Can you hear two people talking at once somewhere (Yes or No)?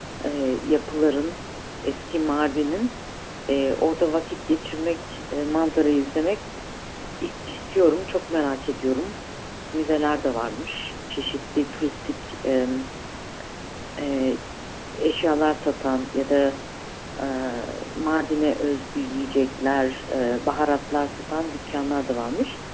No